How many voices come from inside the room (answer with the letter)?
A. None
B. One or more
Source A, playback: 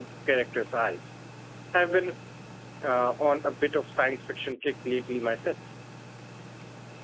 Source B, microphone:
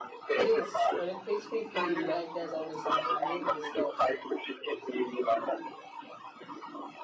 B